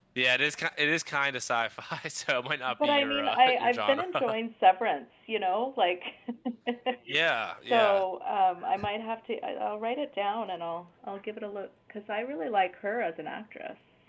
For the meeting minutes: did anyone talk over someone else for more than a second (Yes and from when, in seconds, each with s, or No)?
Yes, from 2.8 s